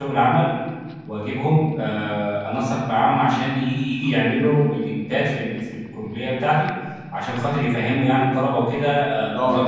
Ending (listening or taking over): listening